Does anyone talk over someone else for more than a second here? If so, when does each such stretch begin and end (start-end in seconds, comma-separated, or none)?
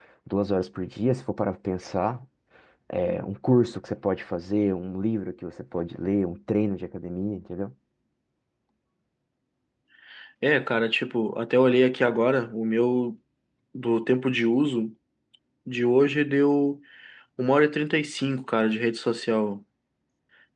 none